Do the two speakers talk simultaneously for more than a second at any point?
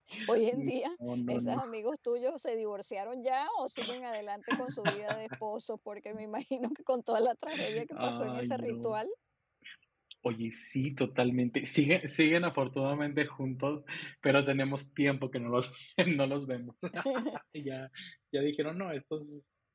Yes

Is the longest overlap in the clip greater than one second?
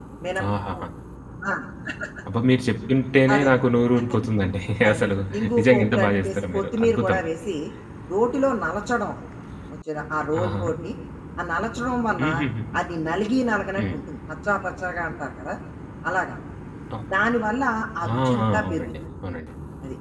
Yes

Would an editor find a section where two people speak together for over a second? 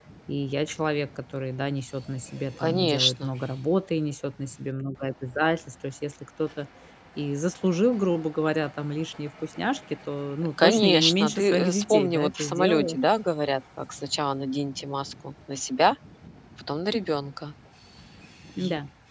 Yes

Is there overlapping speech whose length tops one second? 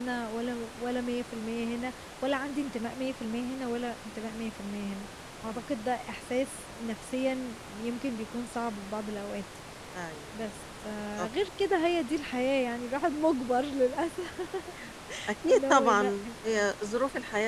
Yes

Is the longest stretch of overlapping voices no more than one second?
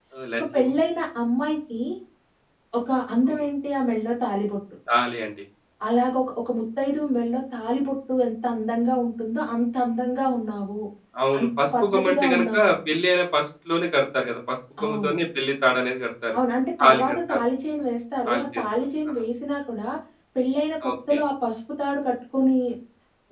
No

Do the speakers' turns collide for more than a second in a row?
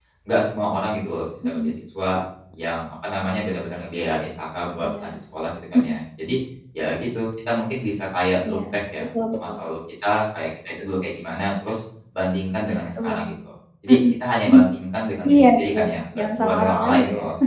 Yes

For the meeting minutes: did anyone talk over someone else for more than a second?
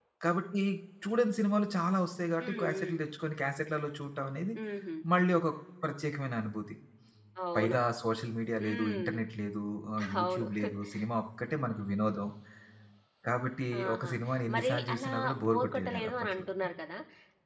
Yes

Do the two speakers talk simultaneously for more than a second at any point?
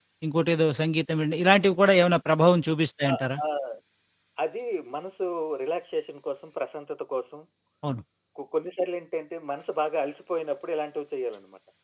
No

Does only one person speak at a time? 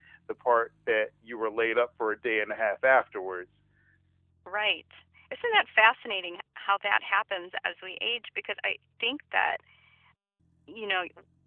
Yes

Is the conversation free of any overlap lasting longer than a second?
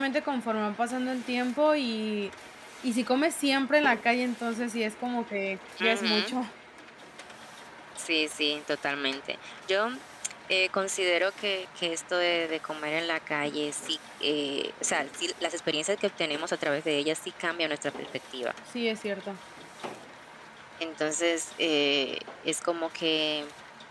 Yes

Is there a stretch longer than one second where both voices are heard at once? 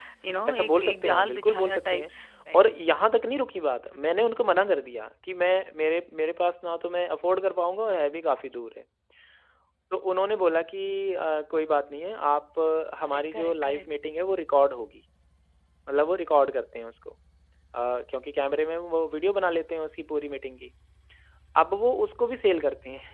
Yes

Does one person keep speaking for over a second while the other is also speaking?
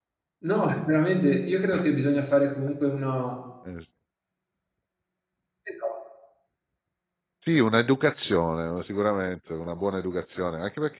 No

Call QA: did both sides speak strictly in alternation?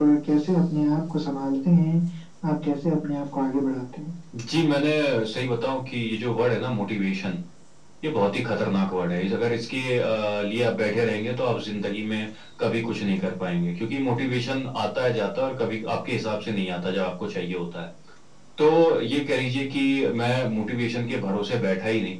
Yes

